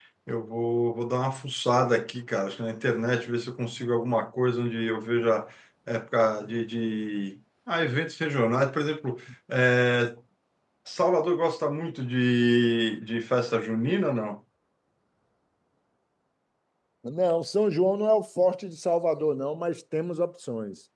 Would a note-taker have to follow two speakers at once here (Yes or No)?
No